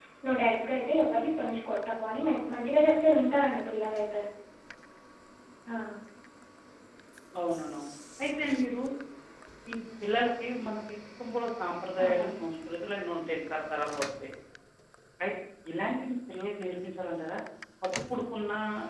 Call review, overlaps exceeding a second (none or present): none